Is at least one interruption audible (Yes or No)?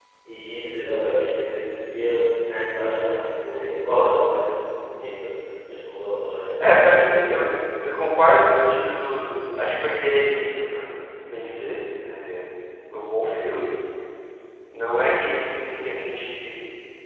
No